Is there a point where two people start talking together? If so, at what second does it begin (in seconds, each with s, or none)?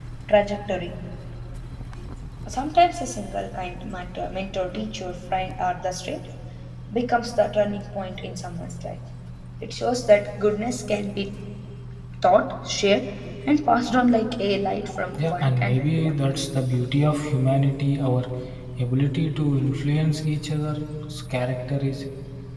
15.2 s